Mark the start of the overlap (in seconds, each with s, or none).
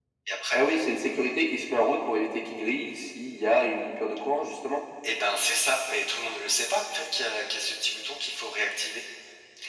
none